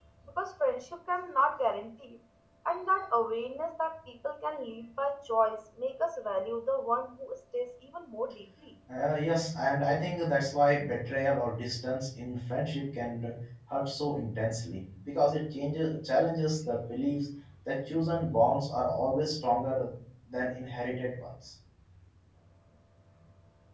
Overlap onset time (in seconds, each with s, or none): none